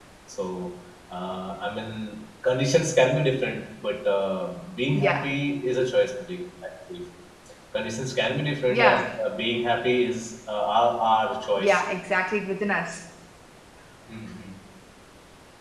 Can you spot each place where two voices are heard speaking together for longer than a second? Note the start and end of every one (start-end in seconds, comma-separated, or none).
none